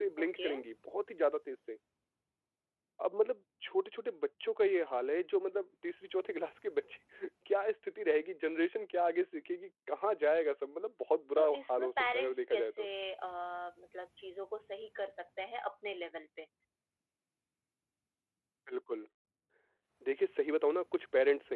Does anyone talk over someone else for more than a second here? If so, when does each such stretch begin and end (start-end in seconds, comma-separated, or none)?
11.4-12.9